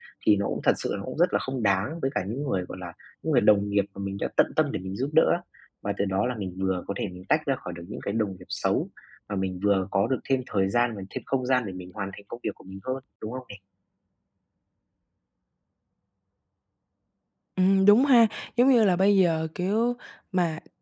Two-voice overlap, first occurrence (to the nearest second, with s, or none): none